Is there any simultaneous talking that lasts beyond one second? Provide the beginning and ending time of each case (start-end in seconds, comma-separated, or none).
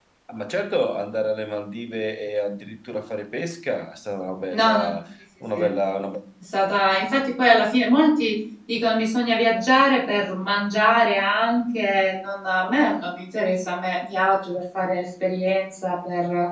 none